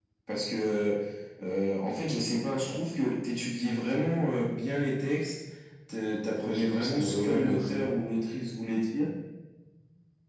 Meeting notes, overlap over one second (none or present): present